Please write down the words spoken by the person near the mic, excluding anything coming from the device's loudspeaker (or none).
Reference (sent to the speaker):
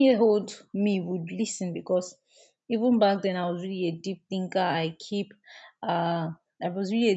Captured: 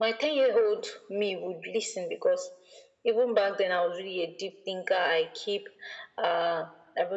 none